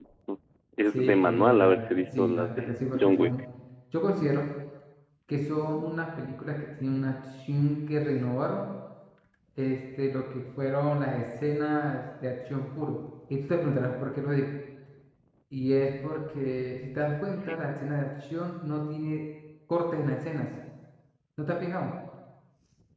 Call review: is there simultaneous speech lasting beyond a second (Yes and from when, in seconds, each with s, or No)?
Yes, from 0.9 s